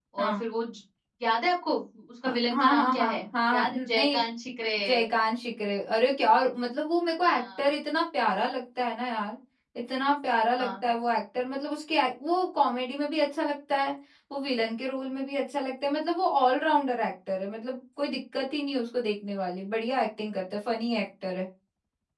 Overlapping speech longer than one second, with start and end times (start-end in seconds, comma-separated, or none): 2.2-4.2